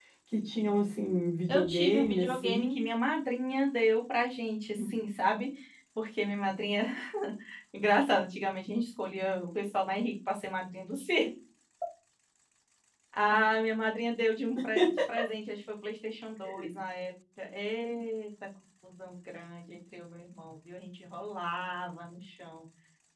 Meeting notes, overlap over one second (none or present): present